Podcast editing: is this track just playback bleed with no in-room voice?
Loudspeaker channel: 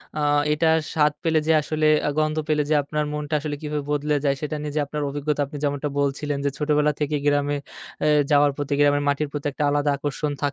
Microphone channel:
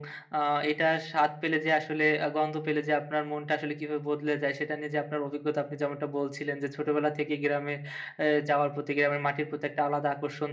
Yes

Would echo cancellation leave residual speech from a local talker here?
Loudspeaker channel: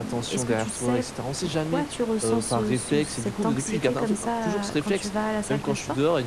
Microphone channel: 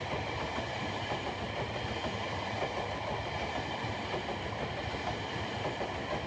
No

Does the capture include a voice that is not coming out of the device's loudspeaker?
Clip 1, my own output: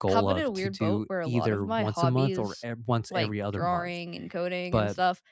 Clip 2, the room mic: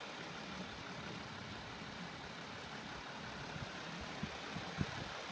No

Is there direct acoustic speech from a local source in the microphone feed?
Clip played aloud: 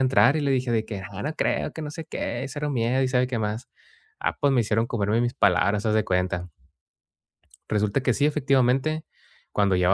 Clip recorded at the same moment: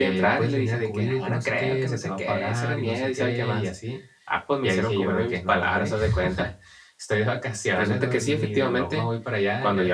Yes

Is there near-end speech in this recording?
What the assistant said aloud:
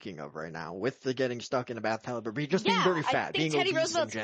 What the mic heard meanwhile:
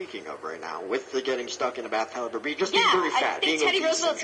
No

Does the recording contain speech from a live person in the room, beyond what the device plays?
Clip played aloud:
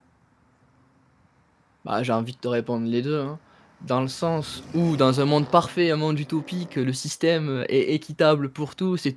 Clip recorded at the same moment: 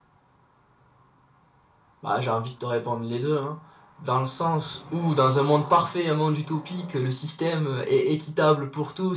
No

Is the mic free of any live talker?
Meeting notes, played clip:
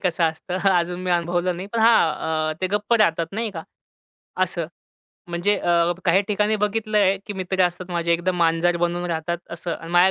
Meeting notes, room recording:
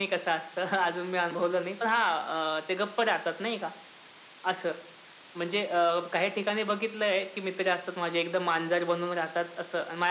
Yes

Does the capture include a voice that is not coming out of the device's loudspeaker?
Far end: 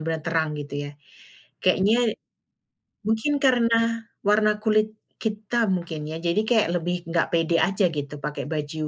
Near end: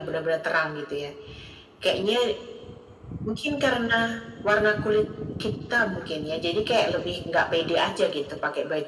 No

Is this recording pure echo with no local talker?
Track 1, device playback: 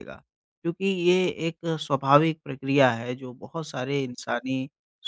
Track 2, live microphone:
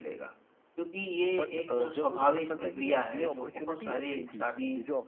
No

